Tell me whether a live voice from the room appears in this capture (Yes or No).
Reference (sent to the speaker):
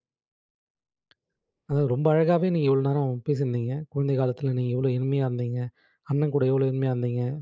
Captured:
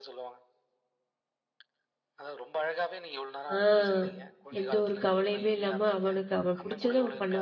Yes